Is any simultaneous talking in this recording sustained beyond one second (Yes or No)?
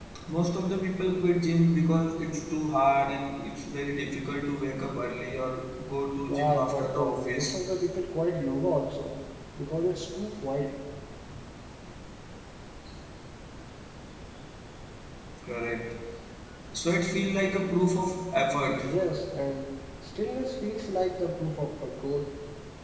Yes